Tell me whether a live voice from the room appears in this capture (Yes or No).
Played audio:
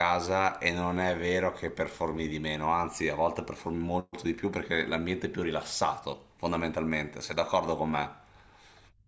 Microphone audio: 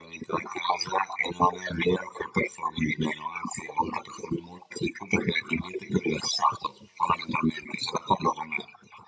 No